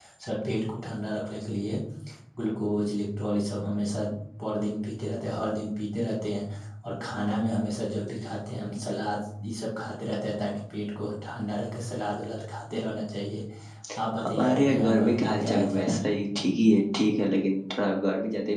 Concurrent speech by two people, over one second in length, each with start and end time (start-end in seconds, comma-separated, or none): 14.2-16.0